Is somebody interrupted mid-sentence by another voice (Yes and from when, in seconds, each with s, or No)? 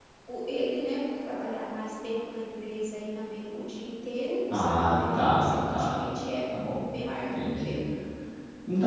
Yes, from 4.5 s